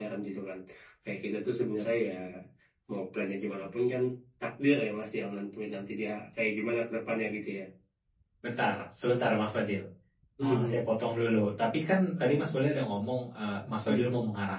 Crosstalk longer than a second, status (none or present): none